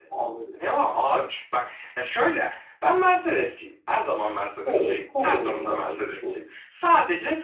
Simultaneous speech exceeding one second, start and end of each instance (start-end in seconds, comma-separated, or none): 4.7-6.4